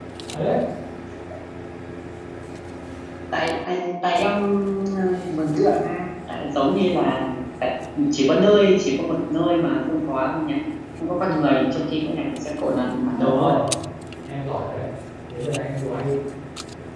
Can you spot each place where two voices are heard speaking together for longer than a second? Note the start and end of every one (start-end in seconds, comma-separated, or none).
none